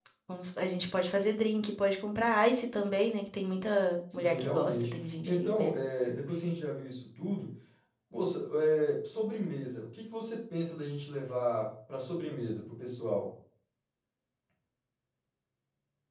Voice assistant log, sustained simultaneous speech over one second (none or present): present